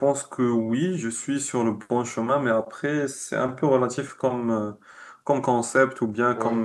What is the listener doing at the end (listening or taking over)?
listening